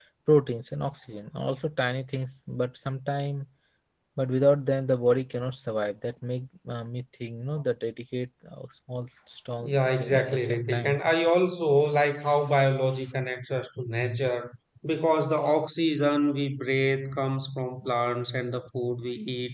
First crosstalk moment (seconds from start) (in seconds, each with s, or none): 9.6 s